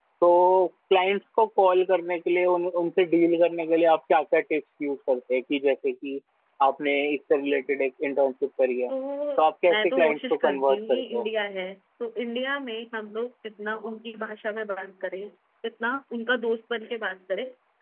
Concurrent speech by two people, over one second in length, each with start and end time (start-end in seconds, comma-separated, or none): 9.4-11.2